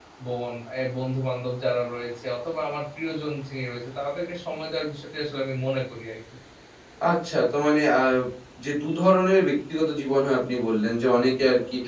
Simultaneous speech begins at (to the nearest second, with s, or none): none